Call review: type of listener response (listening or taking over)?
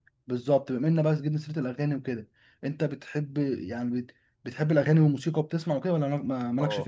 taking over